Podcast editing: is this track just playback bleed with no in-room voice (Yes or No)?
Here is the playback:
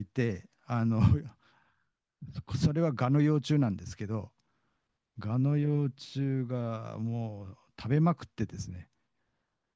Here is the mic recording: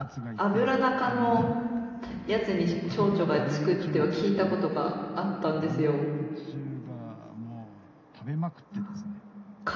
No